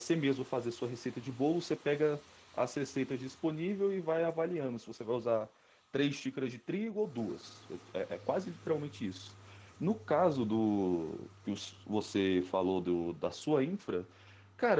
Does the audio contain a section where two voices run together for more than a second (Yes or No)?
No